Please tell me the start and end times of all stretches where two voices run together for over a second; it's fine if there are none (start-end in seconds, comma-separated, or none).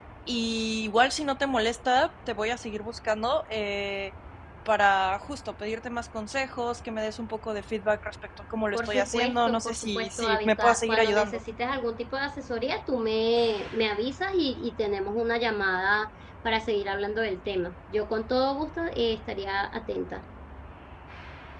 8.7-11.4